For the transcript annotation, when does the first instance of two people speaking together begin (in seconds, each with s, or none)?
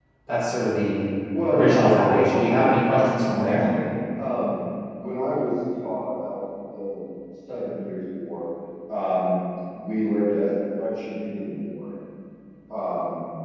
1.5 s